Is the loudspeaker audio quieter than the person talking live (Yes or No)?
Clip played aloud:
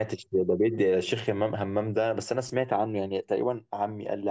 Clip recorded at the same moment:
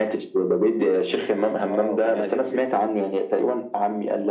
No